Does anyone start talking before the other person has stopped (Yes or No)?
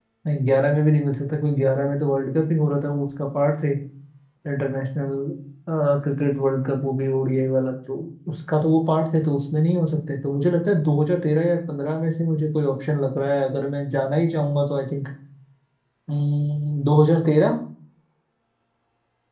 No